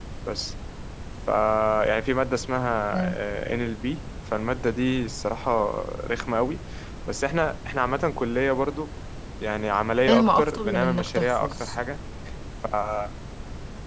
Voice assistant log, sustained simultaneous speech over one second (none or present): present